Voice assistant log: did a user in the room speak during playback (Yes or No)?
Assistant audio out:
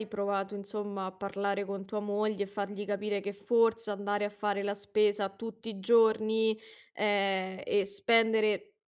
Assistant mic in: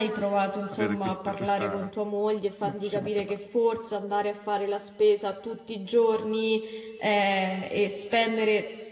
Yes